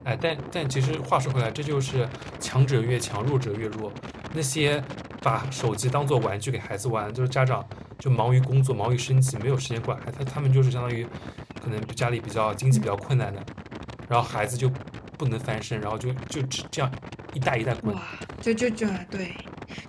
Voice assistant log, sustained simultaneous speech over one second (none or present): none